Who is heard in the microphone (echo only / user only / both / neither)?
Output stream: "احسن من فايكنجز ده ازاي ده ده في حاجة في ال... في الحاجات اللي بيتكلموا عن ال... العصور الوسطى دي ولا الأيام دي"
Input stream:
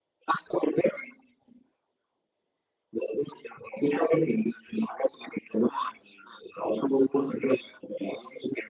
echo only